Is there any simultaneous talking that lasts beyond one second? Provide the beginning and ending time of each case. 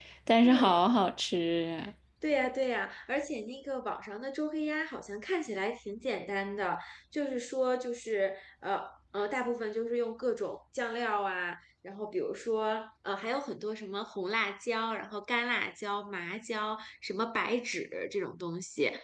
none

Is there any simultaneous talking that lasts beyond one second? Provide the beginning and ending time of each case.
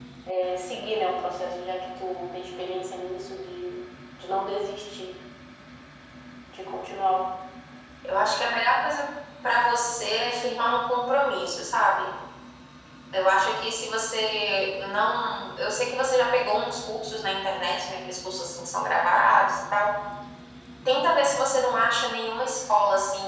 none

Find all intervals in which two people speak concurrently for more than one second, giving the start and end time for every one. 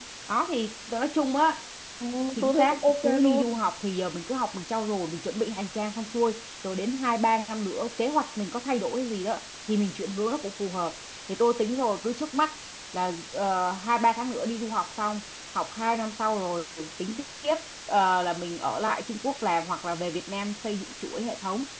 2.4-3.6

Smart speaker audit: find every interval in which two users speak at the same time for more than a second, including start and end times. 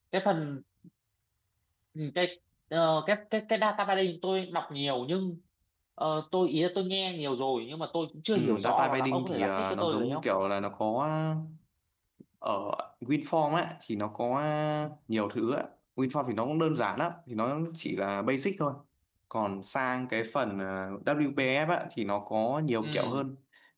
8.4-10.2

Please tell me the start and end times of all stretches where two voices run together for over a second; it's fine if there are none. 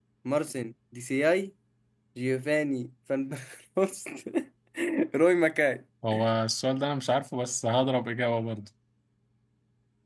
none

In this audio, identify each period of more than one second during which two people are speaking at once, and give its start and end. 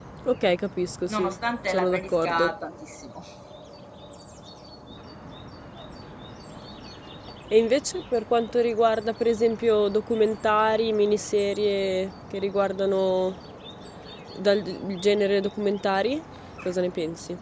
1.1-2.5

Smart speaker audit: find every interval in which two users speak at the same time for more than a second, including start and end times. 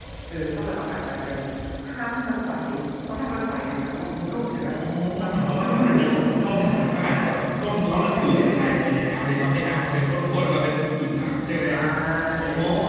5.3-6.8

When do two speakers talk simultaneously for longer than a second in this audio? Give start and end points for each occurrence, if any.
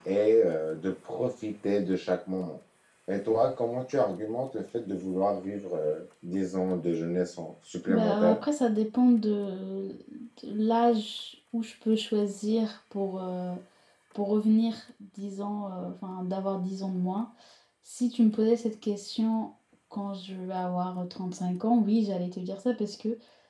none

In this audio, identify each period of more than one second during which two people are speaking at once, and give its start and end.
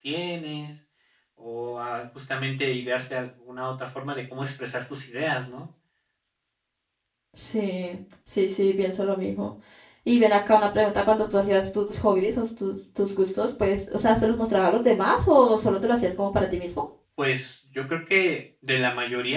none

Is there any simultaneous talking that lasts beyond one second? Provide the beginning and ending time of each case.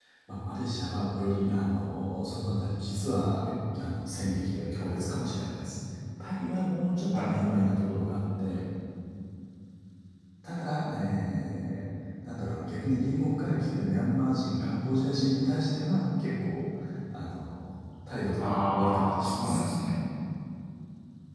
18.4-19.6

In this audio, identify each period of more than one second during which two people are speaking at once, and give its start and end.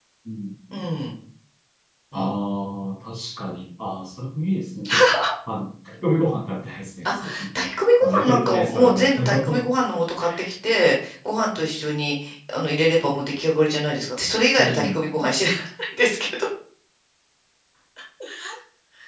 8.0-9.7

